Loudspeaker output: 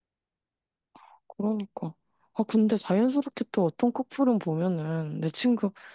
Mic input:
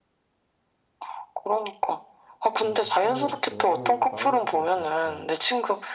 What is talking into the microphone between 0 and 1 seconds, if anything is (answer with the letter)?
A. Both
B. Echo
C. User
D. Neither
D